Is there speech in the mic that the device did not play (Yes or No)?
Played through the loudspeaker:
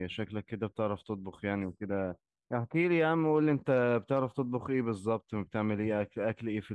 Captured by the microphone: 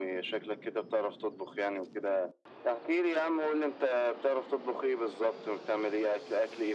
No